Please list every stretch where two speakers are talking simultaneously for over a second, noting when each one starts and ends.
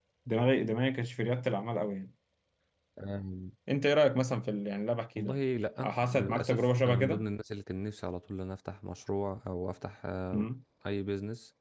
5.8-7.2

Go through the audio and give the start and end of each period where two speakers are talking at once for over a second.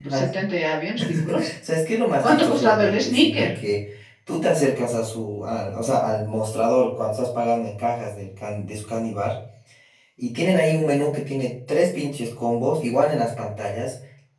2.2-3.5

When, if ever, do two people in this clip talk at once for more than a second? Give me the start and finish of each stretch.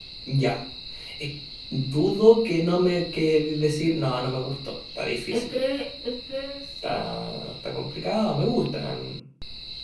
none

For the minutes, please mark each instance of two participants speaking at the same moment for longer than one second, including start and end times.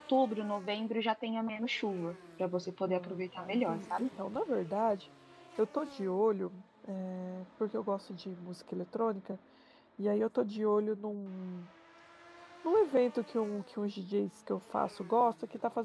2.9-4.1

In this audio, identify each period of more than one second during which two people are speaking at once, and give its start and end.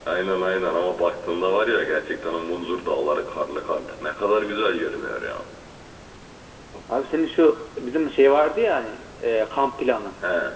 none

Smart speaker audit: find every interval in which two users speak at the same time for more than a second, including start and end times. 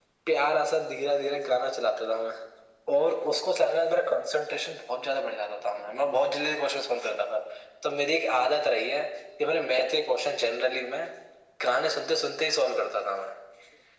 none

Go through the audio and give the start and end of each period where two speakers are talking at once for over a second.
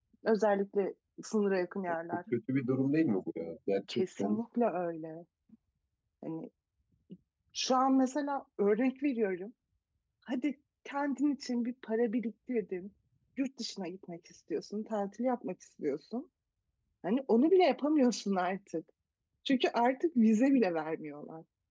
none

